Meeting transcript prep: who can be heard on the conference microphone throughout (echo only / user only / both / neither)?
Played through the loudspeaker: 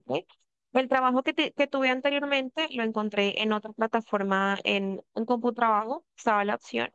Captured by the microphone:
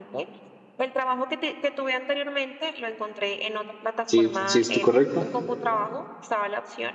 both